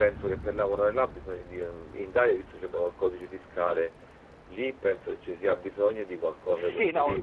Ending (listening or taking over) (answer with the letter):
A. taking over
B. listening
A